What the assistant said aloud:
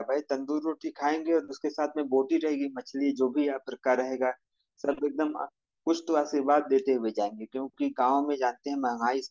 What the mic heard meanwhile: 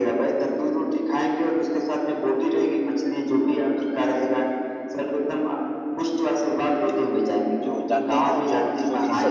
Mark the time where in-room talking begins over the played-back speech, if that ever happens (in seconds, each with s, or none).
7.6 s